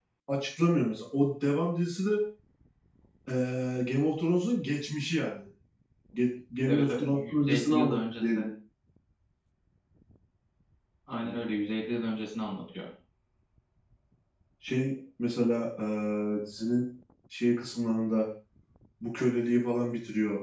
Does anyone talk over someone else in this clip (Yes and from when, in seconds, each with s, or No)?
Yes, from 6.7 s